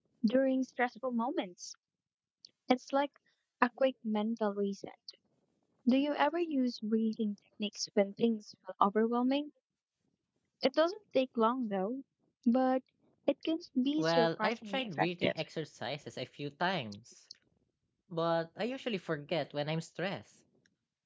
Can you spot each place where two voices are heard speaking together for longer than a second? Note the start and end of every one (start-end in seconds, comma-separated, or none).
14.0-15.3